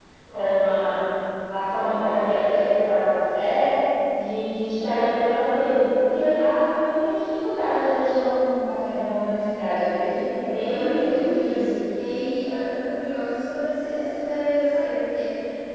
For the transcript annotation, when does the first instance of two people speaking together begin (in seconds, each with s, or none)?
10.4 s